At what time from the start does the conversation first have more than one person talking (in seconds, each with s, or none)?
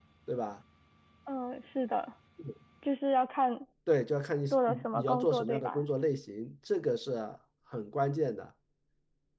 4.5 s